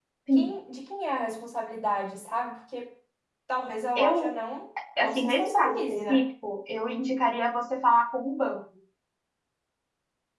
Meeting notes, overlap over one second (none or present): present